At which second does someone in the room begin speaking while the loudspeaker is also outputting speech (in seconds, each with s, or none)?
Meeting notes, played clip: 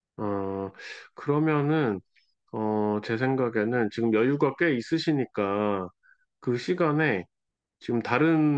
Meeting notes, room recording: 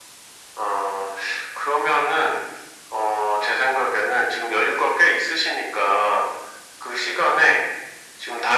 none